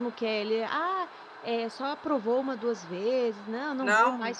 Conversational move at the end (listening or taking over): taking over